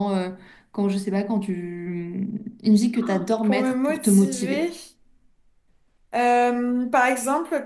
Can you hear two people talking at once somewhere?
Yes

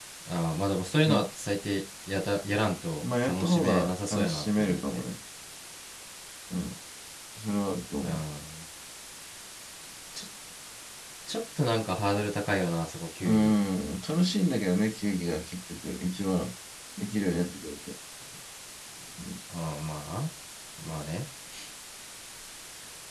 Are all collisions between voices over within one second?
No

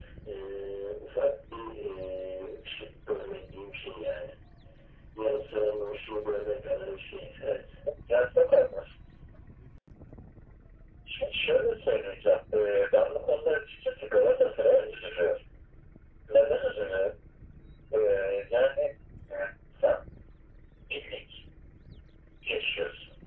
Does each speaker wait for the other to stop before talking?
Yes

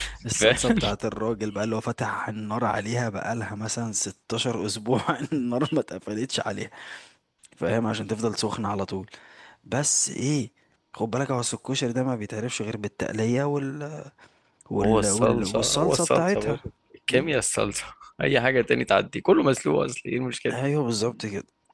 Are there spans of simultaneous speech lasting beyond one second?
Yes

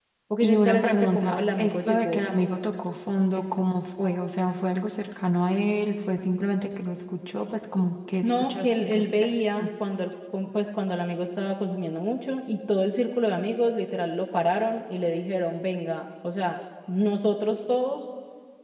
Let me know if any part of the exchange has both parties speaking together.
Yes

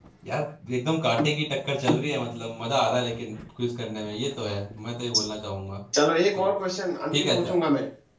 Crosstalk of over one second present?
No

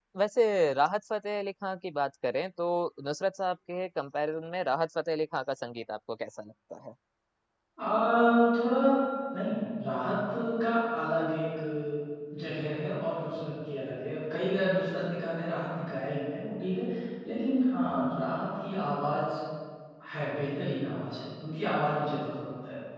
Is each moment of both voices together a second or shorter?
Yes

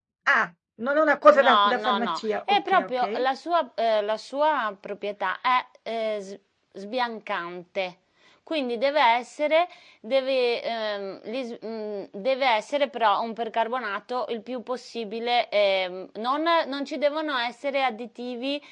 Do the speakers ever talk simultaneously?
Yes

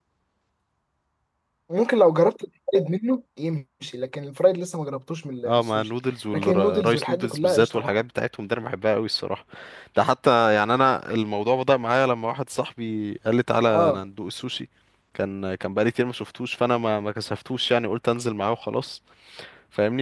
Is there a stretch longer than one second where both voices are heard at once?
Yes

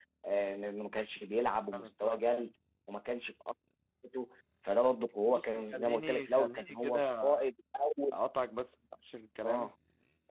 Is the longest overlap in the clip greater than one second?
Yes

